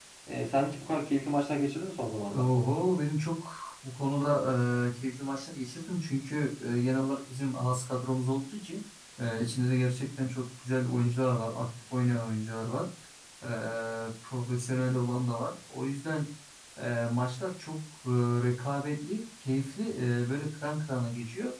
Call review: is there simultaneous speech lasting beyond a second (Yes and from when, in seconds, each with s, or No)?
No